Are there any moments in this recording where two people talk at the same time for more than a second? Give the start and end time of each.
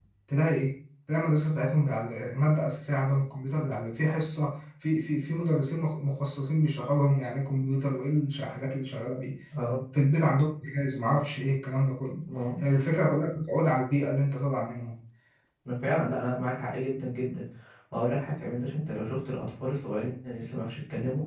none

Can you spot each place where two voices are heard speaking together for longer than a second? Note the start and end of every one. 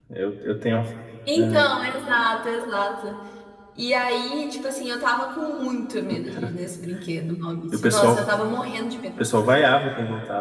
none

